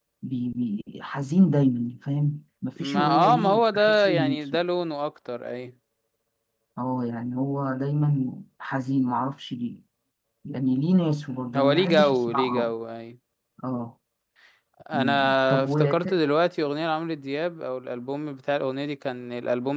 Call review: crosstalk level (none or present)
present